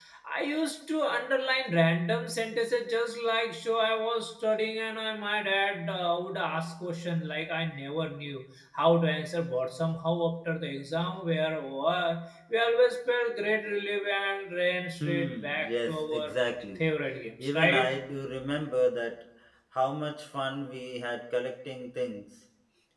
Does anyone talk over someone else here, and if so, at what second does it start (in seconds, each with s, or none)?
15.0 s